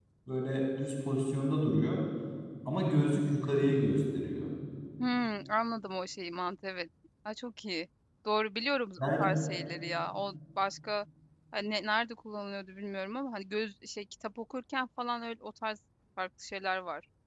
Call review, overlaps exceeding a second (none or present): none